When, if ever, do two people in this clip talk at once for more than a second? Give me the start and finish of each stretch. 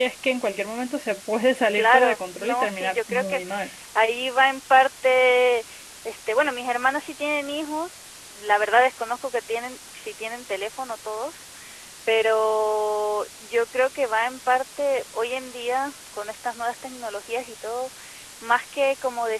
1.7-3.4

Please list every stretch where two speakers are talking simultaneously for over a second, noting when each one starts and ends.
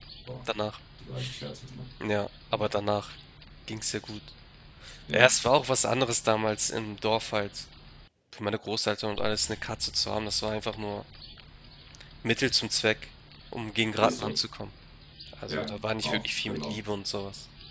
15.5-16.8

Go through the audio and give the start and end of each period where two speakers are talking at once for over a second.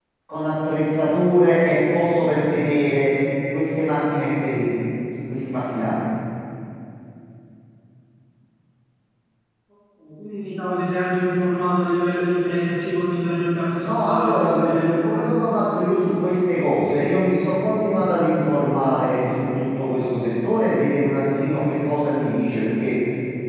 13.8-15.0

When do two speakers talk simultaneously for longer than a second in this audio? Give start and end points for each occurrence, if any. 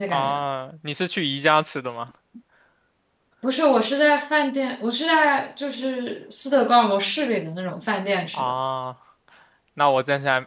none

